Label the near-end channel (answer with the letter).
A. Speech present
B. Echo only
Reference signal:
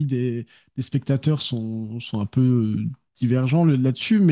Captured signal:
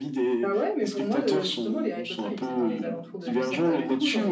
A